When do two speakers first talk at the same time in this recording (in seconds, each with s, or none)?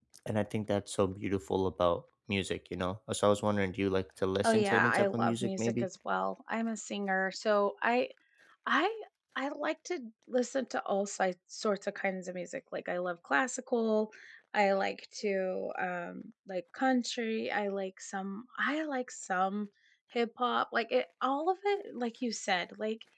4.4 s